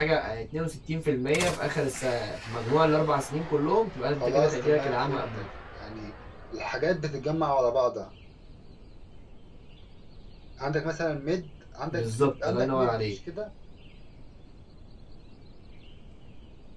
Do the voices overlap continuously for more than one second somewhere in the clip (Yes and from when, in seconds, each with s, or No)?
Yes, from 4.2 s